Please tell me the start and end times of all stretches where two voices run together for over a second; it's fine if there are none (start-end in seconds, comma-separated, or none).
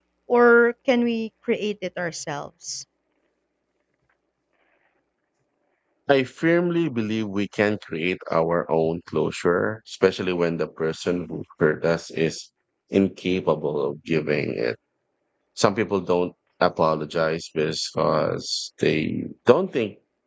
none